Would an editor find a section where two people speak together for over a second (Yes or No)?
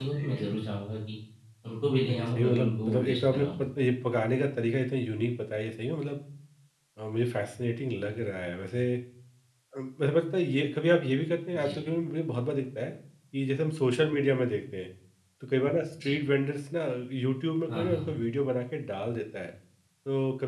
Yes